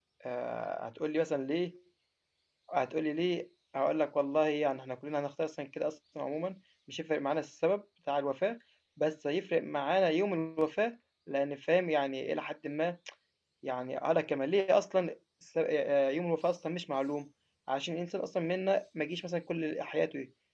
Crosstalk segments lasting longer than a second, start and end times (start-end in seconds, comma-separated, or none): none